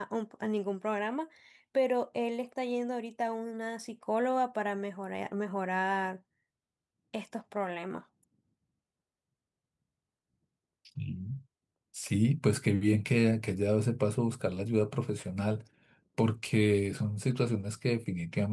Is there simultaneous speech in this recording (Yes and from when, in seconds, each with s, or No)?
No